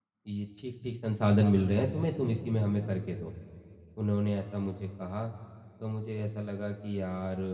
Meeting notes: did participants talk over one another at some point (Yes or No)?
No